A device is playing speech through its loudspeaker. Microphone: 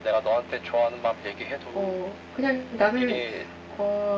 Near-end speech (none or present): present